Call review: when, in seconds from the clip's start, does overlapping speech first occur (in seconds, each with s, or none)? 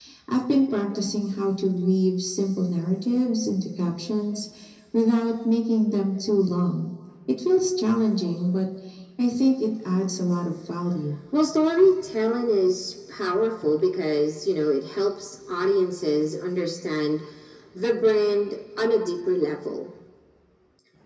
none